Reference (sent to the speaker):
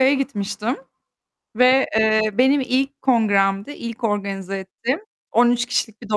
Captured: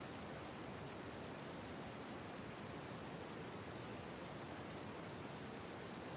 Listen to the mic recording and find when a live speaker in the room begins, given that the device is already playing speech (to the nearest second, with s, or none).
none